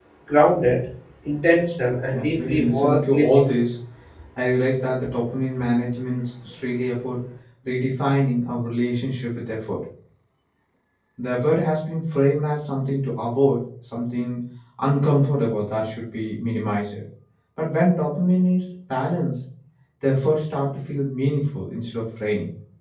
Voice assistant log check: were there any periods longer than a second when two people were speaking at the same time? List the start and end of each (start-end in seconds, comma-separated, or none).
2.1-3.4